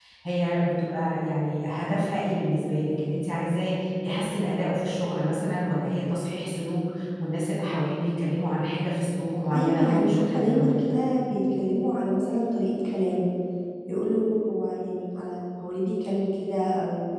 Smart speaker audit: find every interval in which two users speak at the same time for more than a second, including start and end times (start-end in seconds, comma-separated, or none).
9.6-11.0